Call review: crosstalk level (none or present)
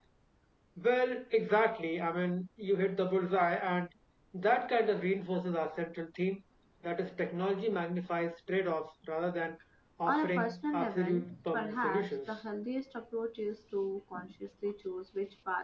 present